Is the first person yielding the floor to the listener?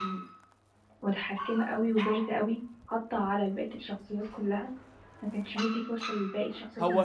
Yes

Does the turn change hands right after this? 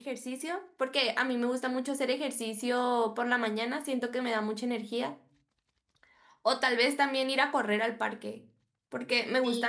No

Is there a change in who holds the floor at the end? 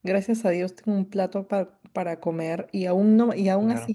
No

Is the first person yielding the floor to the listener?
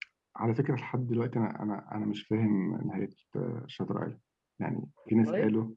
No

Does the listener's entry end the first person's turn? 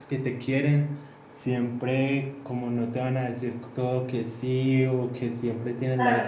No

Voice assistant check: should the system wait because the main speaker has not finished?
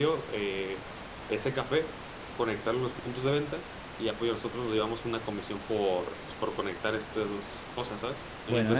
No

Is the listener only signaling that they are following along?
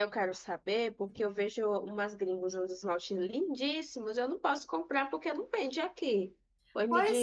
No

